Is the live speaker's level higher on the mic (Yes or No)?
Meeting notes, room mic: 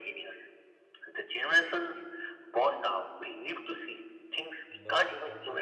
No